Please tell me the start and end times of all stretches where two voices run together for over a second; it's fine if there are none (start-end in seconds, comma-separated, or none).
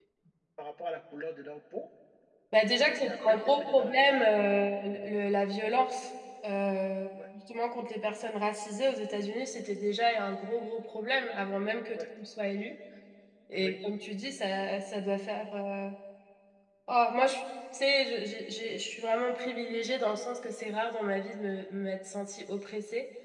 2.8-4.2